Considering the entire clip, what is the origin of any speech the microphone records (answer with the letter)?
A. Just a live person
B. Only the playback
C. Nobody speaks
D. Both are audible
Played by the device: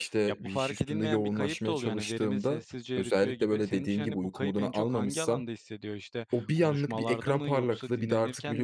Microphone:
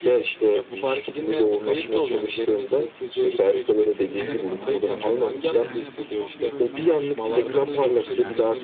D